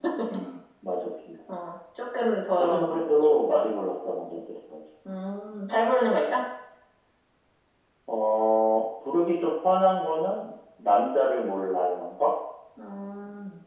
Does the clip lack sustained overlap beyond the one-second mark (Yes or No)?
Yes